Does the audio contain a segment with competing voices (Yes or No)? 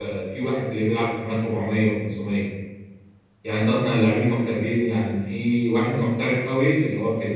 No